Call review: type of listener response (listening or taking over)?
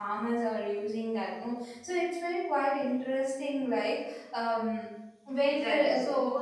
taking over